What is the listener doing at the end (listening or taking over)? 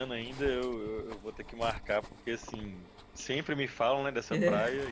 listening